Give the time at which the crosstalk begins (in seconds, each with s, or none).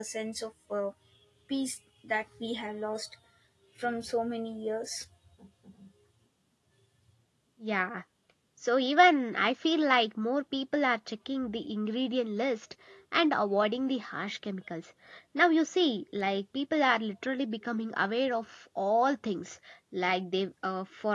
none